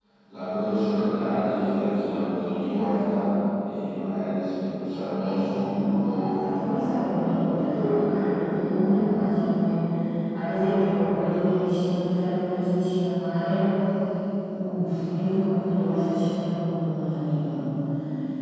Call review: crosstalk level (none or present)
present